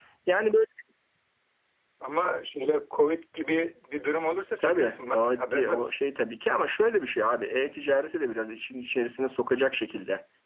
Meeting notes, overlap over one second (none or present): present